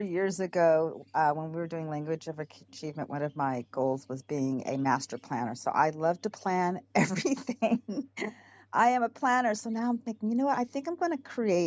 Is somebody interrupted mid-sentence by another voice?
No

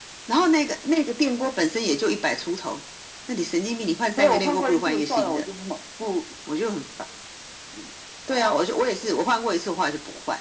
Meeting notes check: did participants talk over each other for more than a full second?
Yes, from 4.2 s

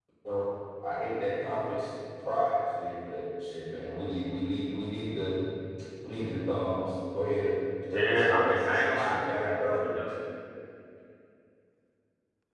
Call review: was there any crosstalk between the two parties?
Yes, from 7.9 s

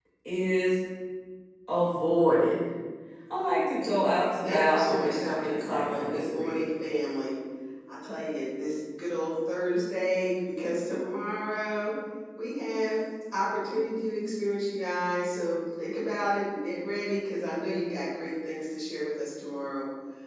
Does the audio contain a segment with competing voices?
Yes, from 4.4 s

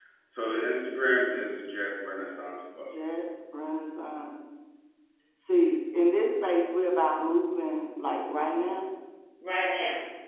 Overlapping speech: No

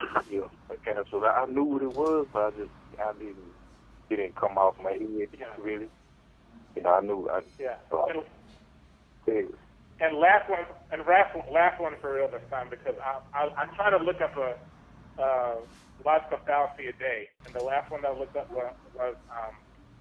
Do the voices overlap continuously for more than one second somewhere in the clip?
No

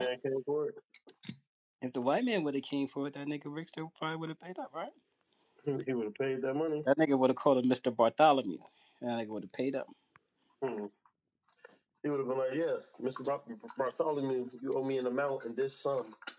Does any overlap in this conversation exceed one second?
No

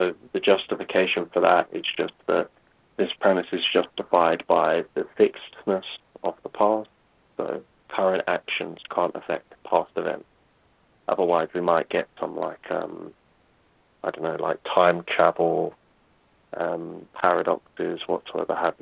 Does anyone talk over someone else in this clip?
No

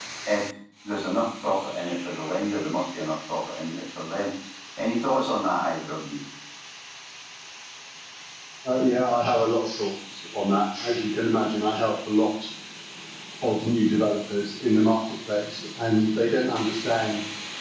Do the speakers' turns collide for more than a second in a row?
No

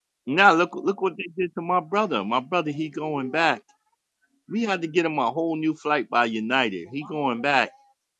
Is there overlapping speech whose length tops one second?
No

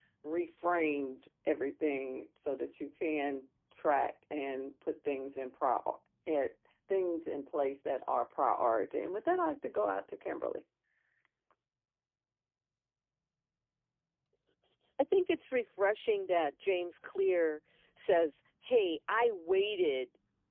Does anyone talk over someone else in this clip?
No

